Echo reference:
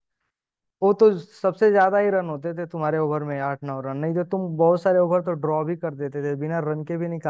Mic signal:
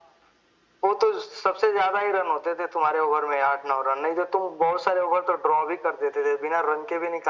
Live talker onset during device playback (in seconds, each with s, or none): none